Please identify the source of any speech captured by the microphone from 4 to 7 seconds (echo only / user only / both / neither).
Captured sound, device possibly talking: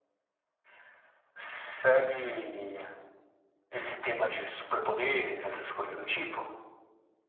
echo only